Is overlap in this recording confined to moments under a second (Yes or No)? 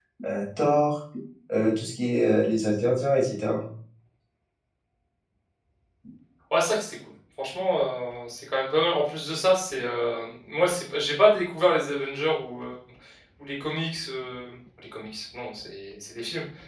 Yes